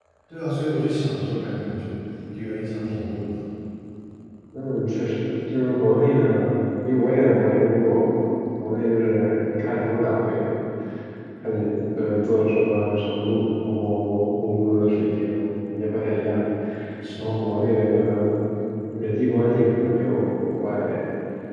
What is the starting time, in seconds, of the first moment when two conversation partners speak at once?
none

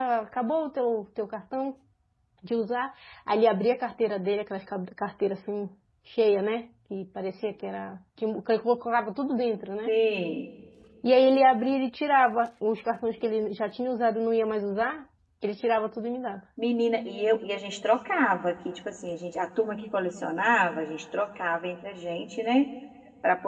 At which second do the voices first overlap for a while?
none

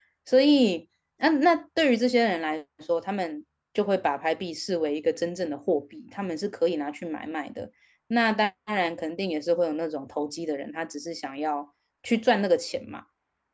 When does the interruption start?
none

